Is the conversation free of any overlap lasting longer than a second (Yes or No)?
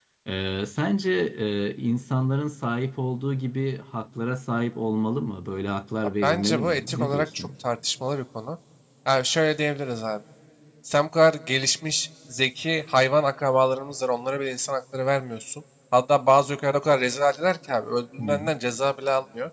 No